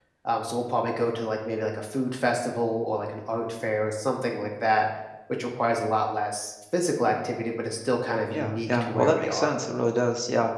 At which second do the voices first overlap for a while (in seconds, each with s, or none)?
8.3 s